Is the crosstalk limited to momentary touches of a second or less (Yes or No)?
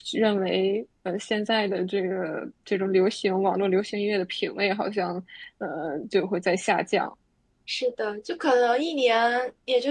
Yes